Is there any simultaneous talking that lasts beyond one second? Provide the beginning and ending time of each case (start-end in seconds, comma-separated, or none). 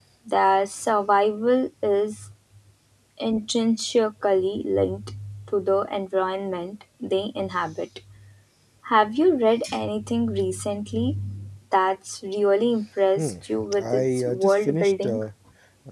13.8-15.2